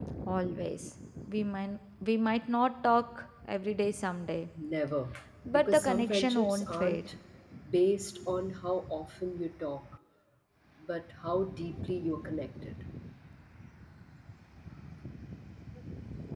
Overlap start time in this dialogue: 5.5 s

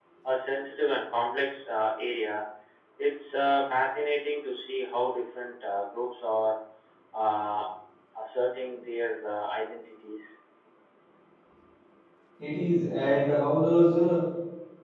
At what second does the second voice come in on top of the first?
none

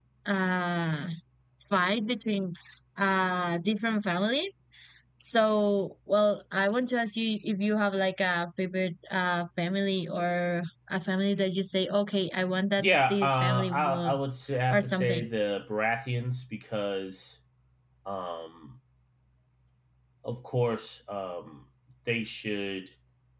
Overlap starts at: 12.8 s

